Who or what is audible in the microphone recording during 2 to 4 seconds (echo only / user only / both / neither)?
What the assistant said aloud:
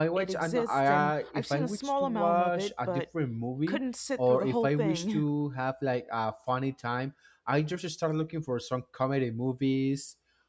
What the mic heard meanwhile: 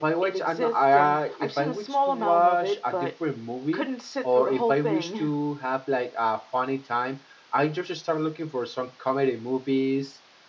echo only